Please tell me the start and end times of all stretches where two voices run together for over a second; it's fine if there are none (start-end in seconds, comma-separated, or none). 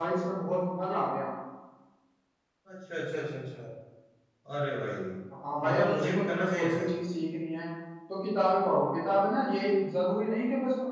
5.7-6.9